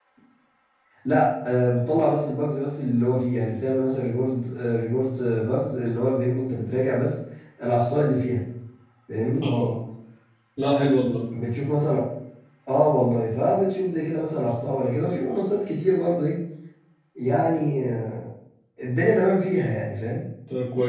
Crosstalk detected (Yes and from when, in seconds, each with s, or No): No